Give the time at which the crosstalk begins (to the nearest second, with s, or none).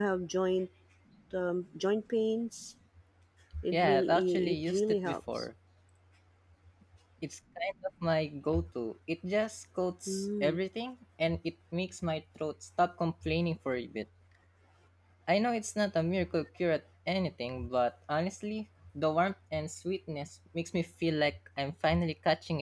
4 s